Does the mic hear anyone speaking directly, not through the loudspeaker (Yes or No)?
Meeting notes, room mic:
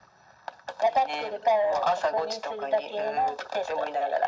No